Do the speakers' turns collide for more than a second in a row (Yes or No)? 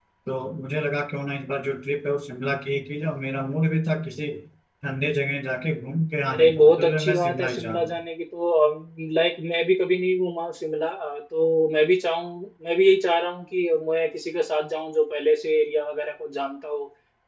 Yes